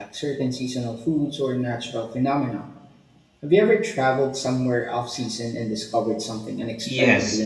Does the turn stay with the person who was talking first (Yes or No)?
No